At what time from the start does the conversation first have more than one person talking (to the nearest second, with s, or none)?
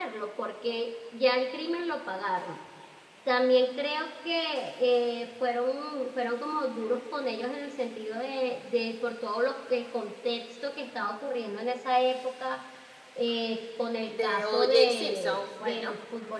14 s